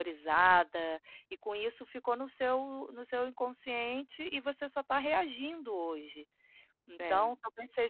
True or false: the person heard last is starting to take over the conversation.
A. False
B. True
A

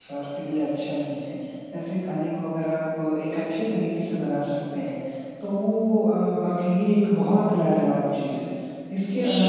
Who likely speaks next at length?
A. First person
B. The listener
B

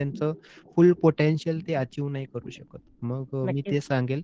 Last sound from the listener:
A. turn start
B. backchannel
B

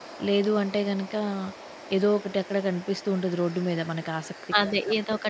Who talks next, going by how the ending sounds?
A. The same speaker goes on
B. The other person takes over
B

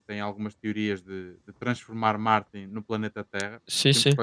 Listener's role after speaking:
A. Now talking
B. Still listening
B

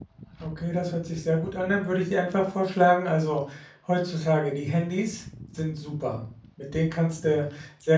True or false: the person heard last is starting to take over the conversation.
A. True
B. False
B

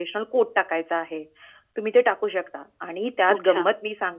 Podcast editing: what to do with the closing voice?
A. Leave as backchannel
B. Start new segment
A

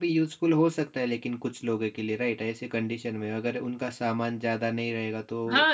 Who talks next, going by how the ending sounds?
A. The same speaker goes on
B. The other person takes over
B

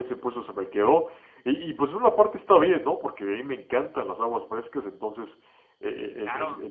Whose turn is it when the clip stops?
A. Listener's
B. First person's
B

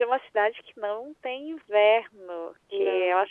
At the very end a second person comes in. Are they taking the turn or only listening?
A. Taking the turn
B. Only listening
B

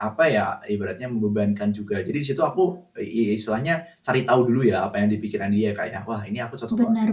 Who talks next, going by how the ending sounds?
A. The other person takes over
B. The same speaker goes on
A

